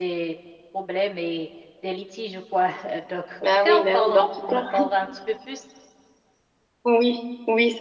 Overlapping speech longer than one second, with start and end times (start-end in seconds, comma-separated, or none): 3.4-4.6